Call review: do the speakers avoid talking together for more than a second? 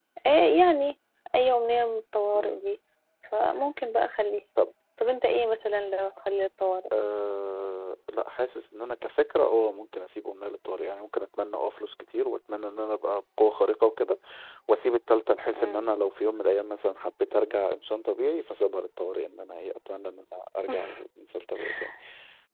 Yes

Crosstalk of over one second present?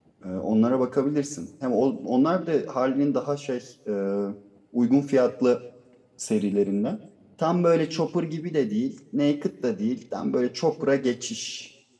No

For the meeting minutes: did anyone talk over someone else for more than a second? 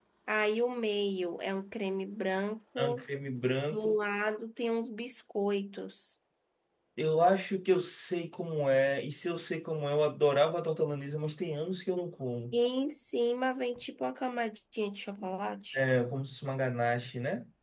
No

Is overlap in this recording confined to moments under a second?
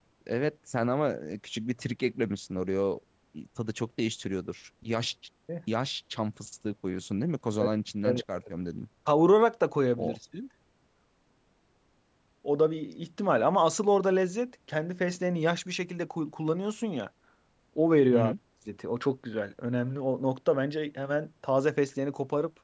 Yes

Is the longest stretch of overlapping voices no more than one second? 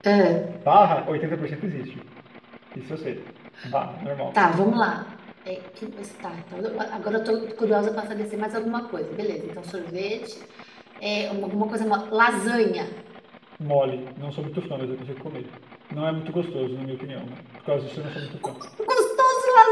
Yes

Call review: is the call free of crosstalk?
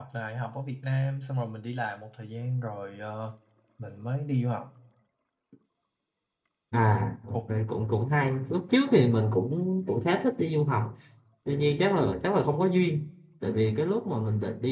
Yes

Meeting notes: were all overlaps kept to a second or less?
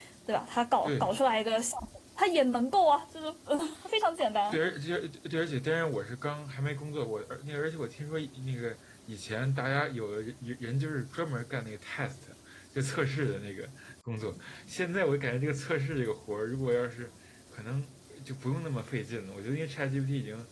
Yes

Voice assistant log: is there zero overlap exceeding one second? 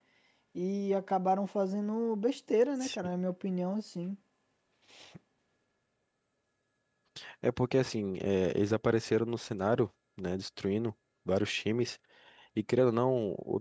Yes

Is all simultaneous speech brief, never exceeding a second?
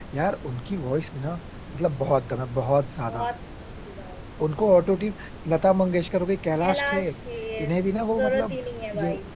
Yes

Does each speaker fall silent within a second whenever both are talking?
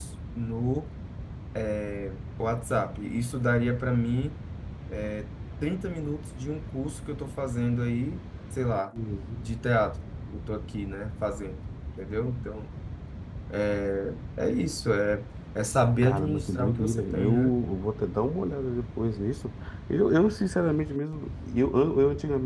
No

